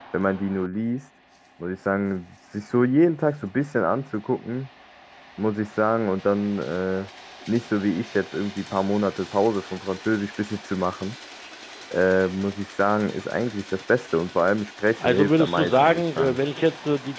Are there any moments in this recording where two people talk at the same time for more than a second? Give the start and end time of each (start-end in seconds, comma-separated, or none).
15.0-16.4